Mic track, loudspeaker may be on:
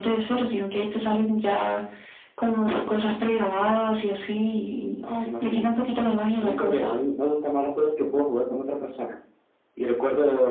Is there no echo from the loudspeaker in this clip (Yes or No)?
No